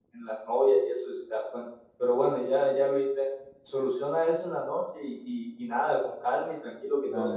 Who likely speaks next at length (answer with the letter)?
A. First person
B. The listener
B